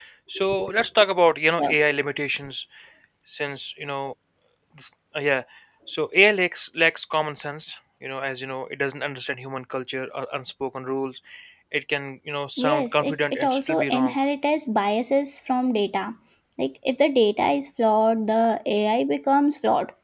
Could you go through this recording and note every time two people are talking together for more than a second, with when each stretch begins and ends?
12.6-14.1

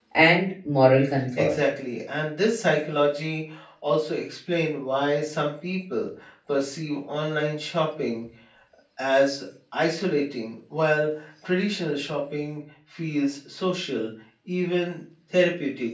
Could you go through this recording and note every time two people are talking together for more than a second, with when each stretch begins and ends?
none

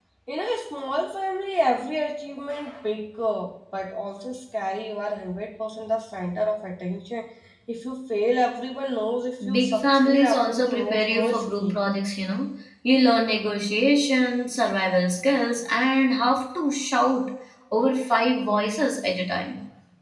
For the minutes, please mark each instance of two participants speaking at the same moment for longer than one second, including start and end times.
9.5-11.8

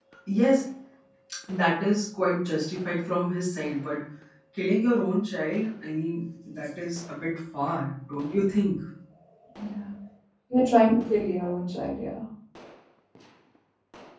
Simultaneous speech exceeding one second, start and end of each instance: none

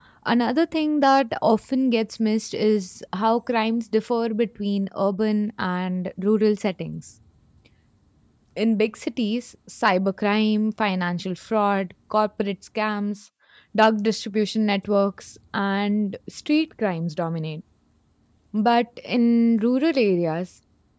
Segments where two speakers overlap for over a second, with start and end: none

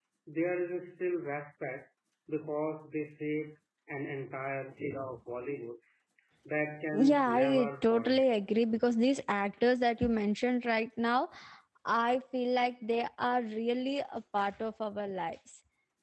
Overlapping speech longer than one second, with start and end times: 6.9-8.2

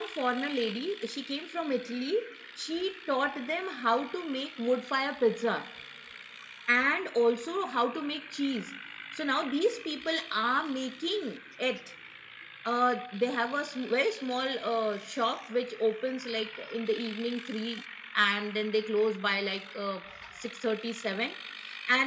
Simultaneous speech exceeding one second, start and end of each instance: none

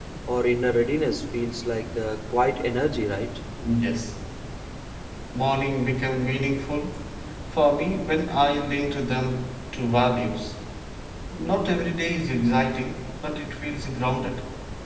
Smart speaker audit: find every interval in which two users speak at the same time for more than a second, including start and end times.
none

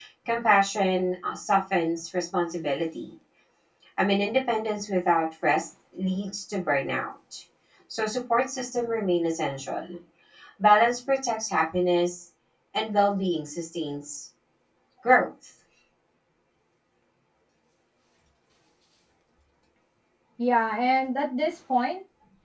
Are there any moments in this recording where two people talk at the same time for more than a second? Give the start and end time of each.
none

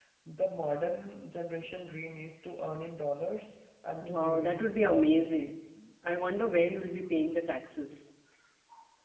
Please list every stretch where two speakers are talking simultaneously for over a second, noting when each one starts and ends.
4.0-5.5

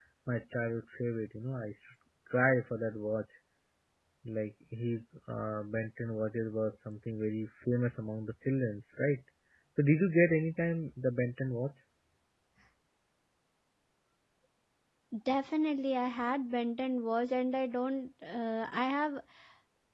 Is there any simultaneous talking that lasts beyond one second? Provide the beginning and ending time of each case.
none

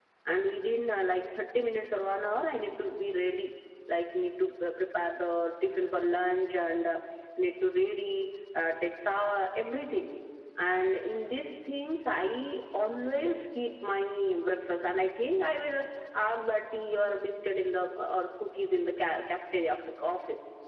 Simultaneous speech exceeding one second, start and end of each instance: none

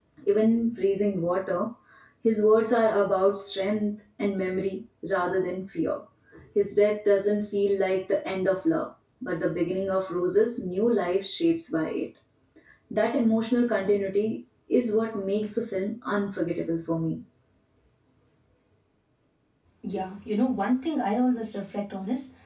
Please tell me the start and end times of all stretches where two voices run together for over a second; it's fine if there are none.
none

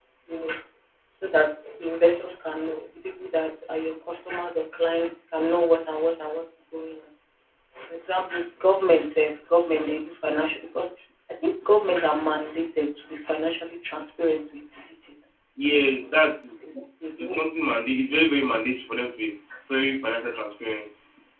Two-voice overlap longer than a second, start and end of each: none

